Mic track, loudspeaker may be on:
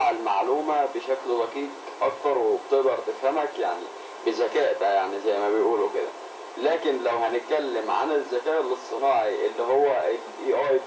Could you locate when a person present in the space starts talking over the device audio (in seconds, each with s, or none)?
none